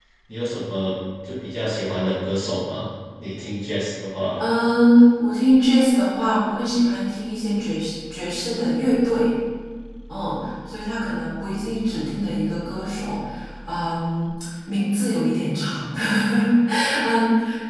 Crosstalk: none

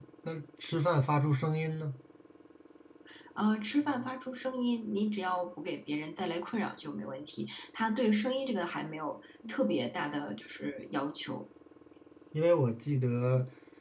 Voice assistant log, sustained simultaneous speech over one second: none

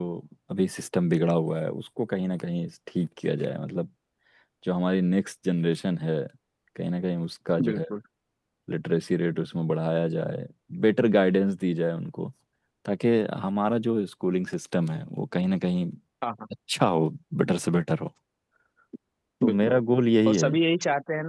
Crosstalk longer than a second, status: none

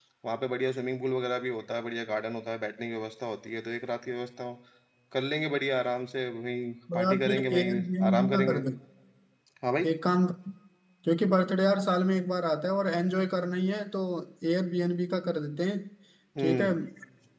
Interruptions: present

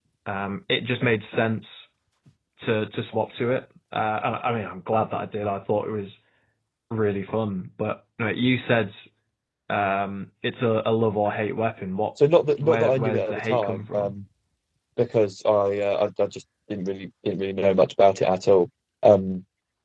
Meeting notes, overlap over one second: present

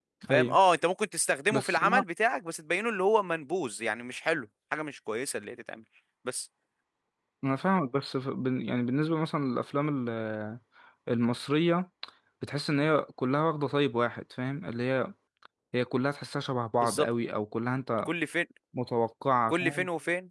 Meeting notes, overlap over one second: none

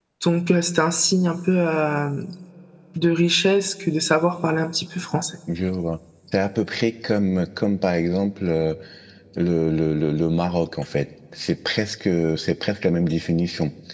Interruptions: none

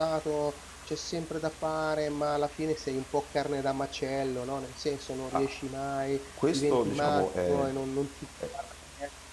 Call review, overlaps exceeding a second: present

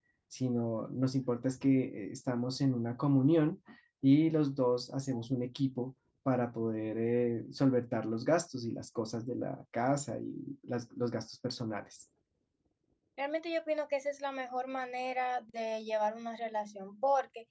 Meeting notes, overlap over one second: none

